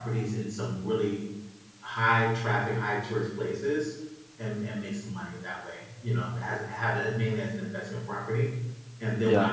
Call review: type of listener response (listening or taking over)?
listening